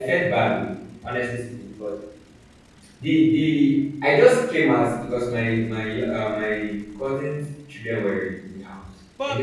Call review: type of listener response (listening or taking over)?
taking over